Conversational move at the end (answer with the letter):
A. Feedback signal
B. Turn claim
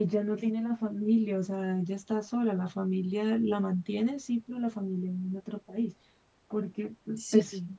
A